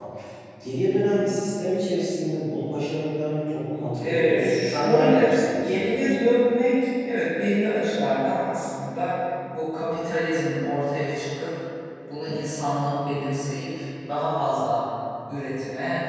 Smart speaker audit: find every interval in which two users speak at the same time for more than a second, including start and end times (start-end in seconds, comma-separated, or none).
4.0-6.3